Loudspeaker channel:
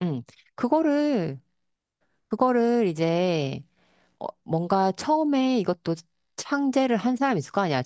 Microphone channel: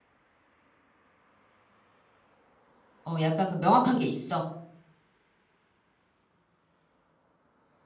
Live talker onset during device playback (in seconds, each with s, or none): 3.0 s